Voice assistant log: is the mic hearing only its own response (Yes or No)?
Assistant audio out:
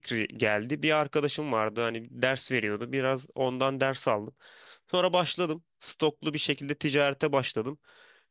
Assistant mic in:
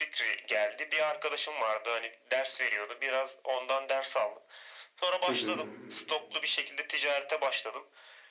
No